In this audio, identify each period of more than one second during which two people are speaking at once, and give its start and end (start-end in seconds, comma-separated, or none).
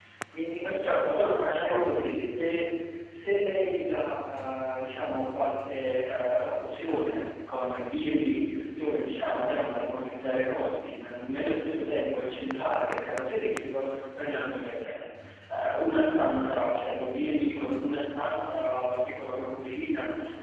0.6-2.1